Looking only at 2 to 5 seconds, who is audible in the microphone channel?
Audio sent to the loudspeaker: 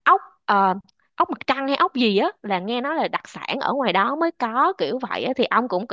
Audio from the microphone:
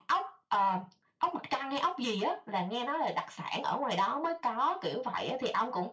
echo only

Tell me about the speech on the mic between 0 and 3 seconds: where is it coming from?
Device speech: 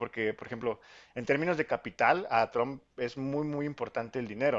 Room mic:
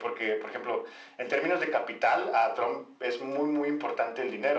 echo only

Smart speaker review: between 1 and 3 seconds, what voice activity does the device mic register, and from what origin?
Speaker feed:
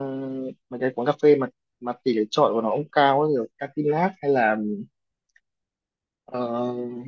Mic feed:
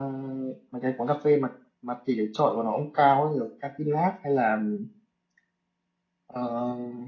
echo only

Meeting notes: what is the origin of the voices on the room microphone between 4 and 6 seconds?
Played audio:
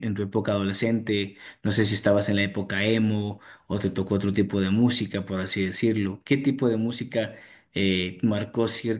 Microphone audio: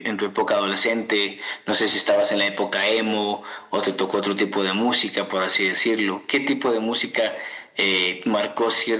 echo only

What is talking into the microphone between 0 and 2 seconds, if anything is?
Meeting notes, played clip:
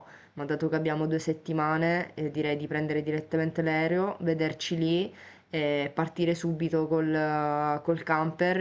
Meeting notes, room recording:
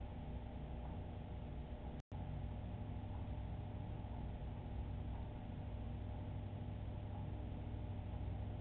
neither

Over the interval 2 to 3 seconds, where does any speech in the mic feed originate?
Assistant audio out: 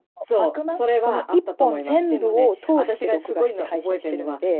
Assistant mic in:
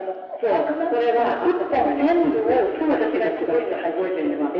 echo only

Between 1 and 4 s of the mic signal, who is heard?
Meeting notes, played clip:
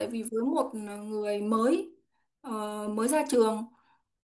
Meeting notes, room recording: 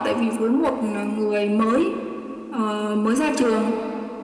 echo only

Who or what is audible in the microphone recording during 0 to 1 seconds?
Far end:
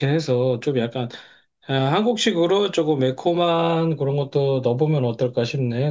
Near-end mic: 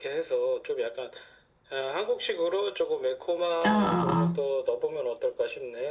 echo only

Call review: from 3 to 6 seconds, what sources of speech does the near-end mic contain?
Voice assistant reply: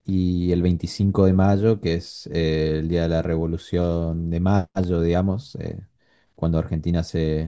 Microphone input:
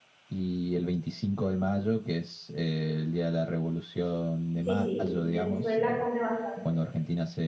both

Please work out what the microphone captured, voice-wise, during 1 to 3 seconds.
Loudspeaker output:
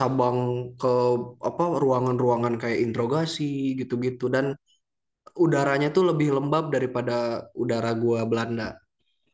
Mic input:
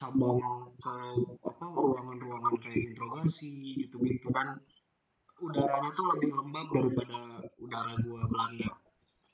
echo only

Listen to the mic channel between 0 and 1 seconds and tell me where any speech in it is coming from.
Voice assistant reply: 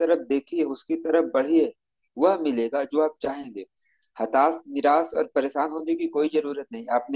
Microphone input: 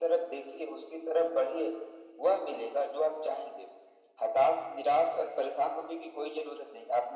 echo only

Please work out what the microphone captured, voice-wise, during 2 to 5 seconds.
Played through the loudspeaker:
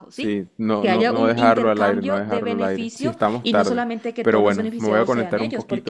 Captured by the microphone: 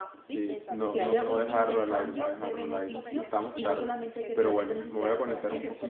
both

